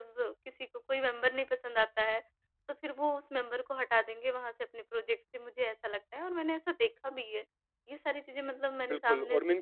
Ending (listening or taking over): taking over